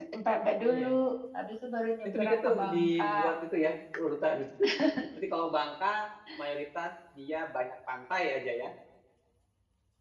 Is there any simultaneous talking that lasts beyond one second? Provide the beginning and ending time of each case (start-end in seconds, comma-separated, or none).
2.0-3.3